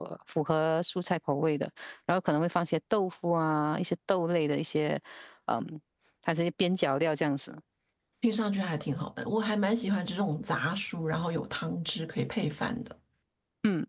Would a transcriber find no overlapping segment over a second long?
Yes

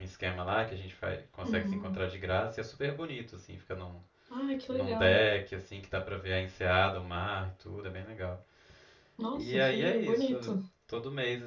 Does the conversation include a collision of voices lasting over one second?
Yes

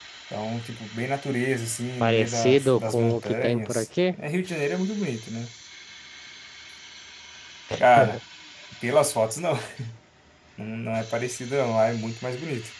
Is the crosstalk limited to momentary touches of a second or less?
No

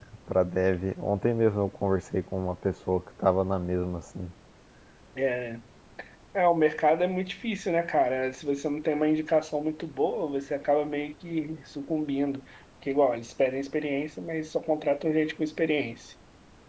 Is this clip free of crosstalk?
Yes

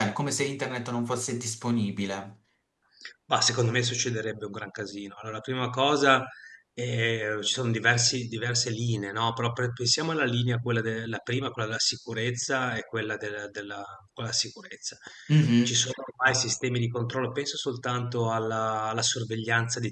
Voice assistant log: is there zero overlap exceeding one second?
Yes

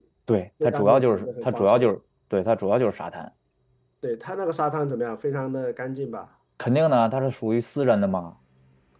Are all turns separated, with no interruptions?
No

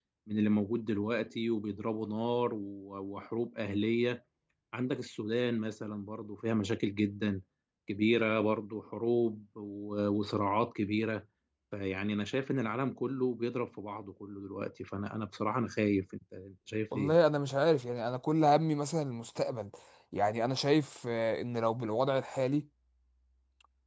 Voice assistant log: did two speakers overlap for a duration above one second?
No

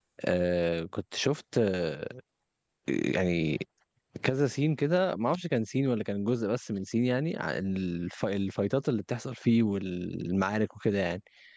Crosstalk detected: No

